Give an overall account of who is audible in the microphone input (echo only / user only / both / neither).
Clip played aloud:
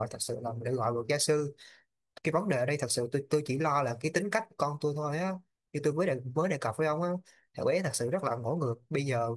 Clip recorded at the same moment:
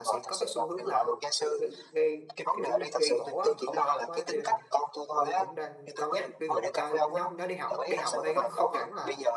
both